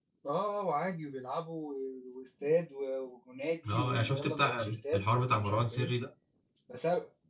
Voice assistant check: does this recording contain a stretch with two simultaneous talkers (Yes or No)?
Yes